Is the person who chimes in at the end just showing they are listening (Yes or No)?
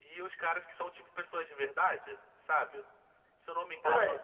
Yes